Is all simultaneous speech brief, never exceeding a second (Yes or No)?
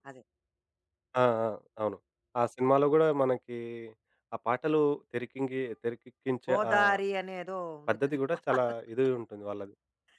Yes